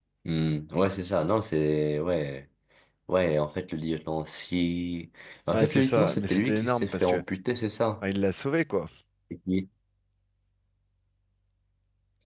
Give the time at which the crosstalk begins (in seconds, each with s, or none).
5.5 s